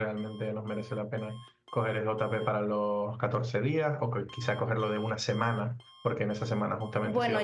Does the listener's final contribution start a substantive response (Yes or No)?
Yes